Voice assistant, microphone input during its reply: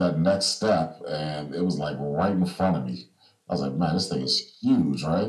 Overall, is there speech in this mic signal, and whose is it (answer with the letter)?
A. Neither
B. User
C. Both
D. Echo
D